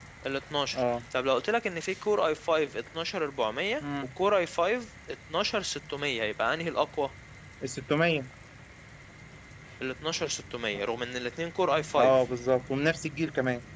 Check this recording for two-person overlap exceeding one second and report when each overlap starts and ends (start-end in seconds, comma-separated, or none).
none